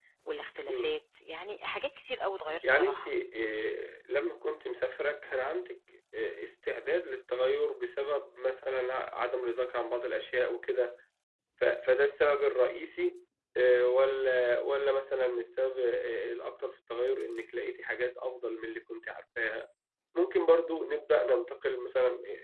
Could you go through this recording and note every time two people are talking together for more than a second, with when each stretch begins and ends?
none

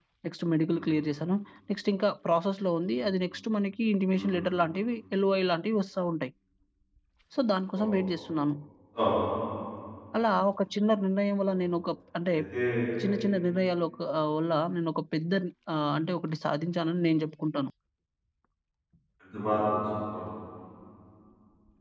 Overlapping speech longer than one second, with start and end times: none

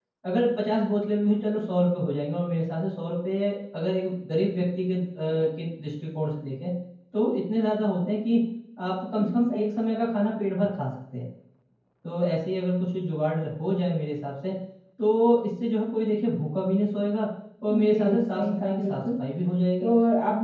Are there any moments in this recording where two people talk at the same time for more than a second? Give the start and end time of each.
17.7-19.1

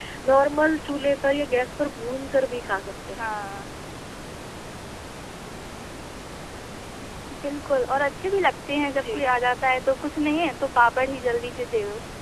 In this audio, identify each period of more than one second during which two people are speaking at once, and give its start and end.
none

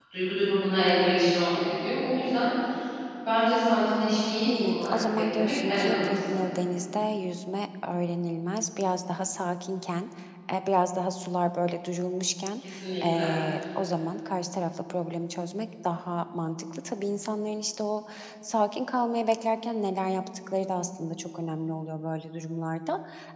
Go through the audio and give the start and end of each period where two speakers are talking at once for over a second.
4.4-6.2

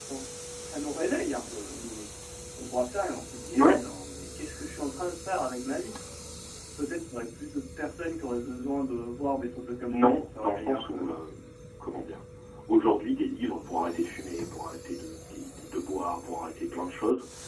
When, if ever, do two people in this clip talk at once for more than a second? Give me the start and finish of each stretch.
9.9-11.2

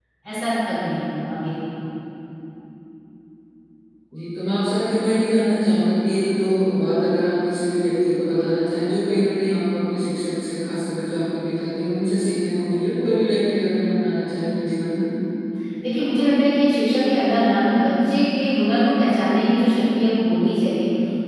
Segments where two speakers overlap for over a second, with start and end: none

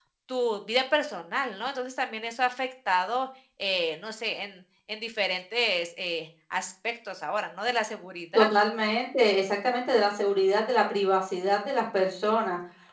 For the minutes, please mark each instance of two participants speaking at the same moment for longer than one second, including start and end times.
none

